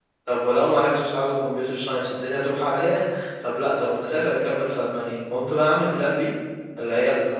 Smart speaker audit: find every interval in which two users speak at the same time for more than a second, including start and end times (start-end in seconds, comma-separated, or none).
none